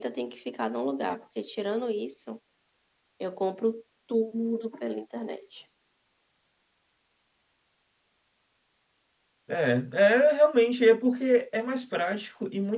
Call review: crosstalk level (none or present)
none